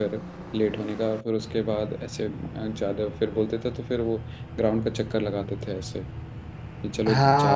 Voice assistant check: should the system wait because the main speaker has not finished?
No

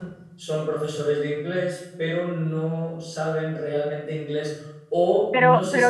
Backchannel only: Yes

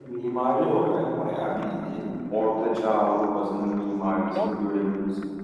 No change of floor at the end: Yes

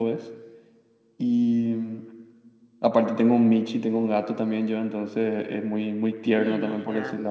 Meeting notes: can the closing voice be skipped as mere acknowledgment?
Yes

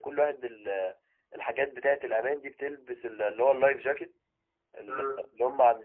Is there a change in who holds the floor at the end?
No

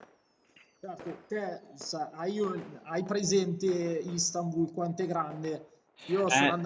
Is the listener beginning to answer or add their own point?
No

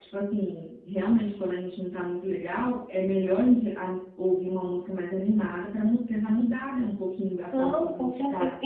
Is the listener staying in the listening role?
No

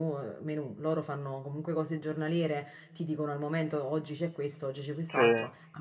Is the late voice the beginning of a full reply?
No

